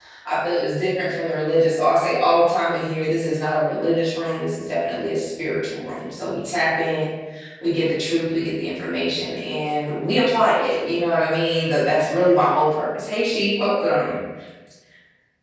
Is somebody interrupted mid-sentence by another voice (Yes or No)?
No